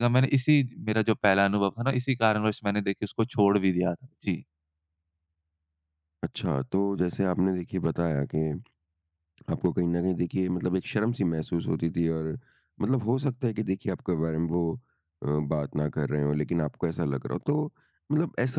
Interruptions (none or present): none